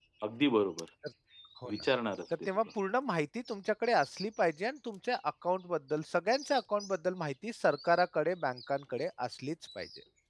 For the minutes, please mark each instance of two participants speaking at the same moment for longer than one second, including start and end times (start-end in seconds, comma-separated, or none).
none